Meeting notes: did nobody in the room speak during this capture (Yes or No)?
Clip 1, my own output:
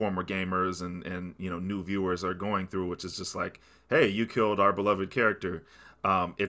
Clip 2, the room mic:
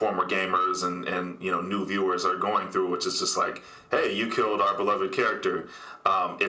Yes